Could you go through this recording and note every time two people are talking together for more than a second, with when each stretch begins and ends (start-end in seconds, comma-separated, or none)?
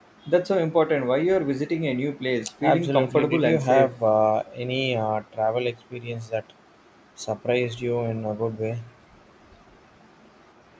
2.6-3.9